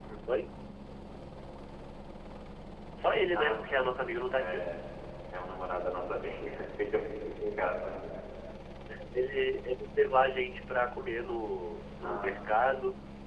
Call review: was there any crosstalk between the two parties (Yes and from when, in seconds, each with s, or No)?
Yes, from 3.3 s